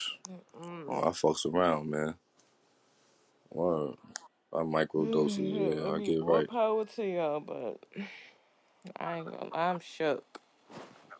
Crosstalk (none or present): present